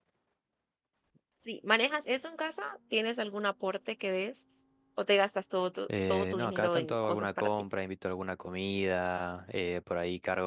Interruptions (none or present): present